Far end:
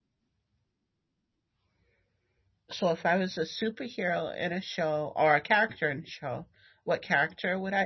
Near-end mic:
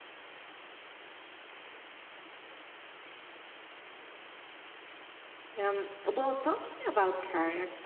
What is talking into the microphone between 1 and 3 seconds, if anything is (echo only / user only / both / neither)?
neither